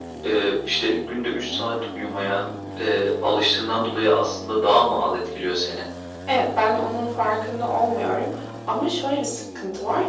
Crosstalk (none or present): none